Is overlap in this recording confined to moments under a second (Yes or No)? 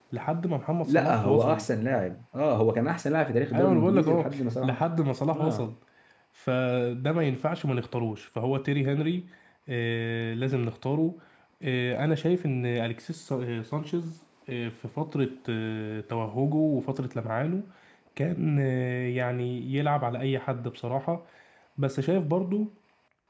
No